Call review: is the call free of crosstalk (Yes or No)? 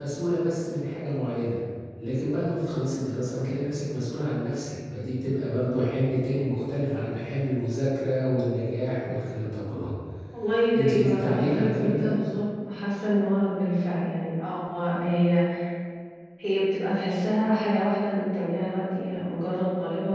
No